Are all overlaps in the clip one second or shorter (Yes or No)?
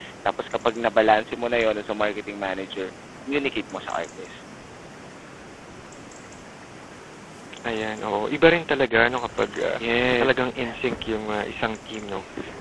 Yes